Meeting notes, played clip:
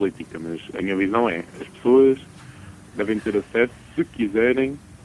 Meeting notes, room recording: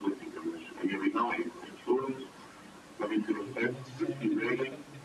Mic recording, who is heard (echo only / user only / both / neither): both